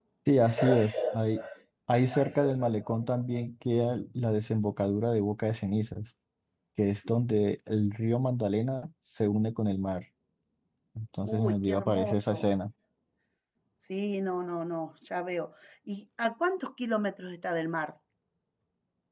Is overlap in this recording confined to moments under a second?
No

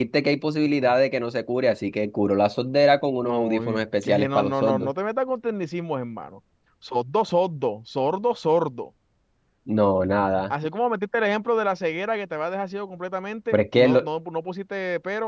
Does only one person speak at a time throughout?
No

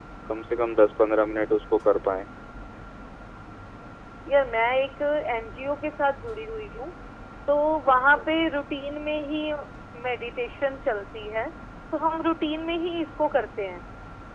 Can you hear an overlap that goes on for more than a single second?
No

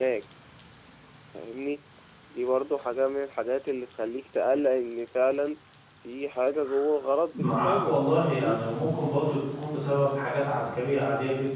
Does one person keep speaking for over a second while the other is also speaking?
Yes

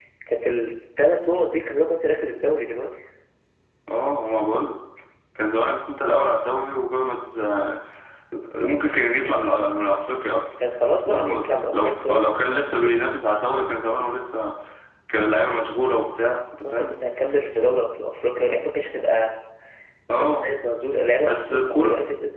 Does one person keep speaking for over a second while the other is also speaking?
Yes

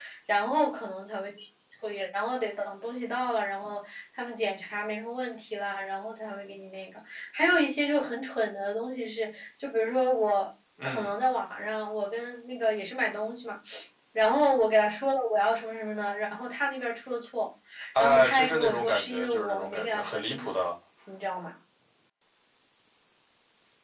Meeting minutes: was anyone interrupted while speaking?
Yes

